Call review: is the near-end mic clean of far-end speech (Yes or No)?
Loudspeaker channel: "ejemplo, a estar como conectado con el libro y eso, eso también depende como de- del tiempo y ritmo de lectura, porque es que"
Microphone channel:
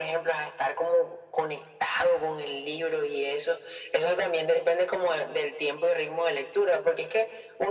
No